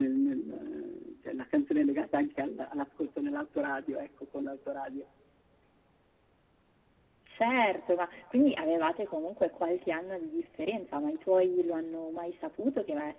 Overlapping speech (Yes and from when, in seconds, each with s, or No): No